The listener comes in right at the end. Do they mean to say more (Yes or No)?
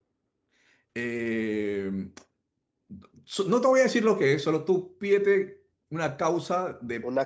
No